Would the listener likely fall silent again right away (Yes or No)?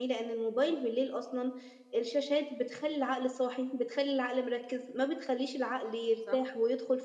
Yes